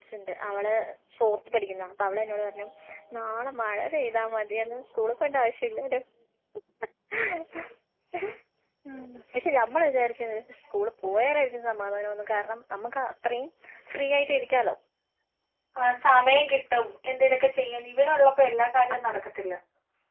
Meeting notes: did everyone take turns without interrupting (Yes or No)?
Yes